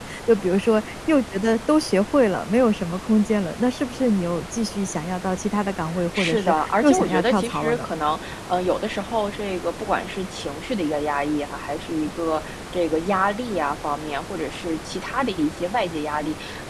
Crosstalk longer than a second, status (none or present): present